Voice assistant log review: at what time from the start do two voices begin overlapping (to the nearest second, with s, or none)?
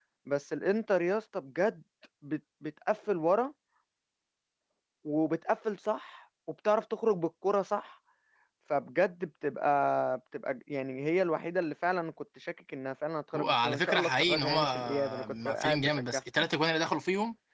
13 s